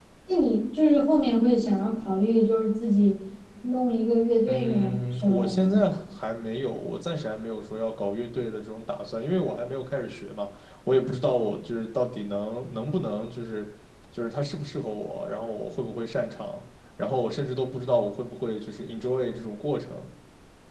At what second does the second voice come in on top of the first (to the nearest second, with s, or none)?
4 s